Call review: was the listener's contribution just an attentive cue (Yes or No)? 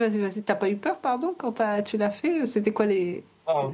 No